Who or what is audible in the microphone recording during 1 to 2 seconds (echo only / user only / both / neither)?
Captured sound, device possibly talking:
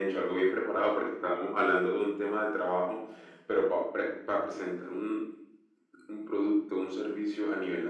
echo only